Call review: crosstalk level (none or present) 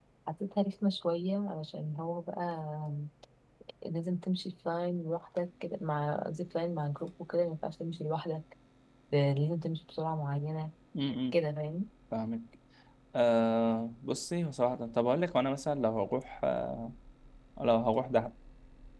none